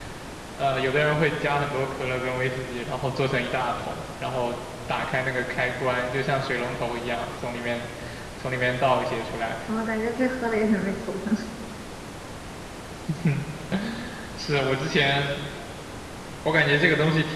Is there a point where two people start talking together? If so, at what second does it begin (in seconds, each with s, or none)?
none